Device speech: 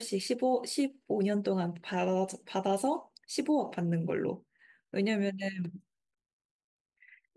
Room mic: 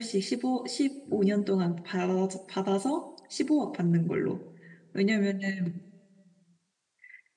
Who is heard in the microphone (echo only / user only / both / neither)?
both